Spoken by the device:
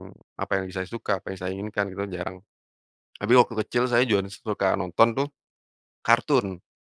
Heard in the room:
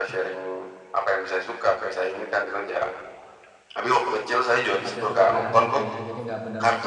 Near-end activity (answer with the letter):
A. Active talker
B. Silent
A